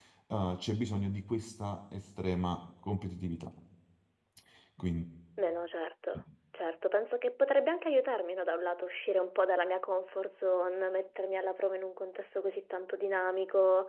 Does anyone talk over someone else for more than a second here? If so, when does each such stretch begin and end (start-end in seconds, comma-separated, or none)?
none